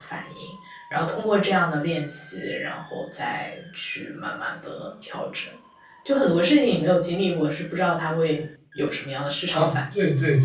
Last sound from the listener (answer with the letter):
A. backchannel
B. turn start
B